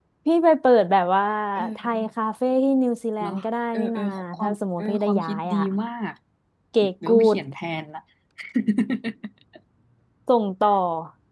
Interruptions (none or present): present